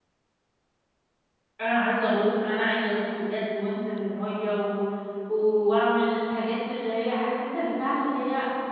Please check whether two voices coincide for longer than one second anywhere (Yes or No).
No